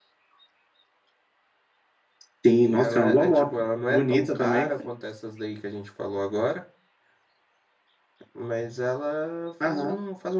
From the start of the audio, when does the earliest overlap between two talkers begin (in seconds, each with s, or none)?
2.6 s